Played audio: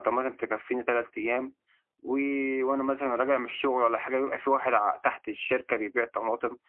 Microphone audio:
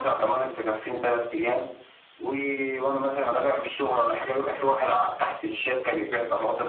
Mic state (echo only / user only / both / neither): echo only